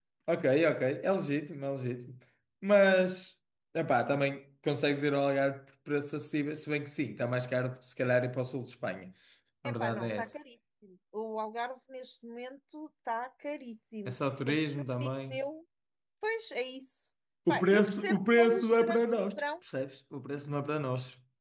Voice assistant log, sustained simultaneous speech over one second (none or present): present